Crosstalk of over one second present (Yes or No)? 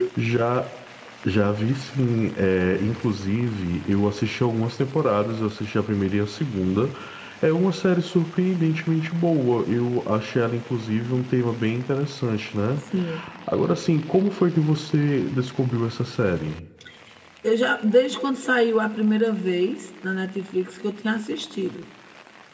No